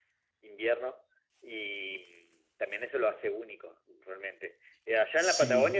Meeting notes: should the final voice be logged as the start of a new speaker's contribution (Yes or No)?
No